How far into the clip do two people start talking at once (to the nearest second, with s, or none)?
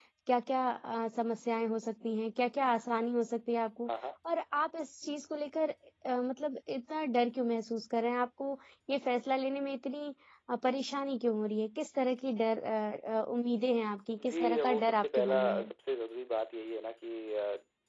14 s